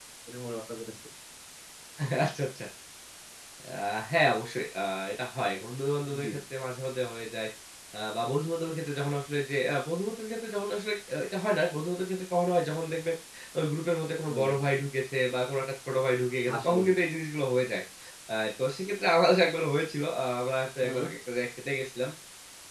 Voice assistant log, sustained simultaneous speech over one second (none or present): none